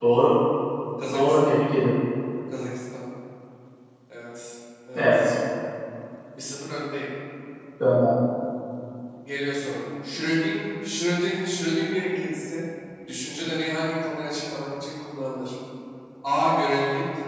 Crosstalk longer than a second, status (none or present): none